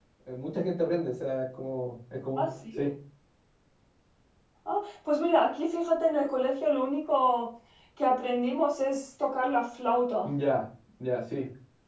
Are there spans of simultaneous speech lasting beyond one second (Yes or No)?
No